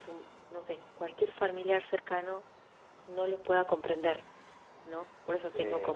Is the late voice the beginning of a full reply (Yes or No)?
No